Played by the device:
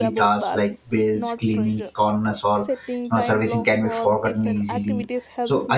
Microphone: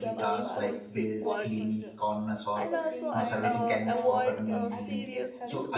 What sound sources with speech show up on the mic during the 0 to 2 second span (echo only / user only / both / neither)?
both